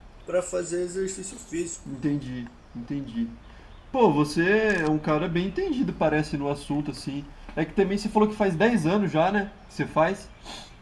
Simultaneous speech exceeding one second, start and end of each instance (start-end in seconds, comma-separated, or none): none